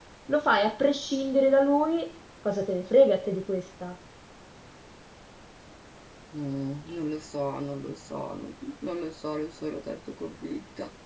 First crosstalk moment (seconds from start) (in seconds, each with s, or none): none